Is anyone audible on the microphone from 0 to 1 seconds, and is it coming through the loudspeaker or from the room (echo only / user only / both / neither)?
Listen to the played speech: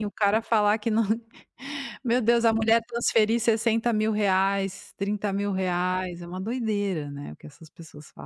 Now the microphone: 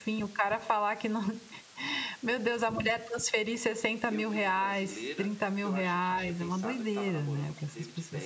echo only